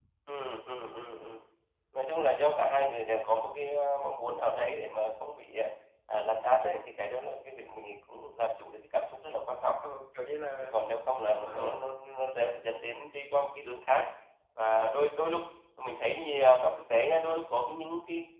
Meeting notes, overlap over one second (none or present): none